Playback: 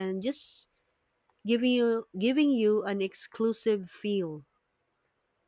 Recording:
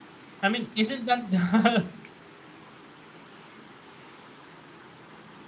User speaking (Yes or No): Yes